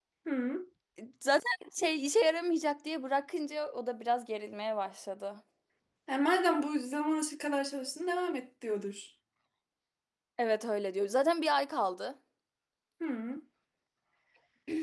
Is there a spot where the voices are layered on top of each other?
No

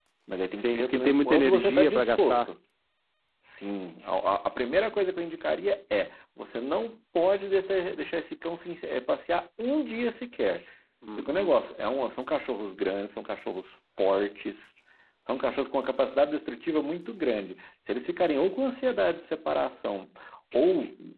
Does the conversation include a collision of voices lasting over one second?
Yes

